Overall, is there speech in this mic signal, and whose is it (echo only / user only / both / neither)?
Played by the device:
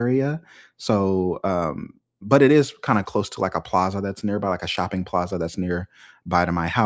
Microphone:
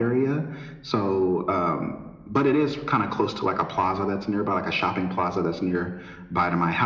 echo only